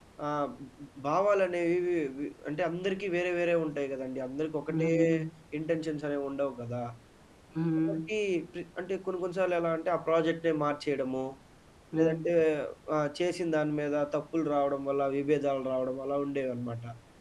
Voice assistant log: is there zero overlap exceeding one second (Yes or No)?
Yes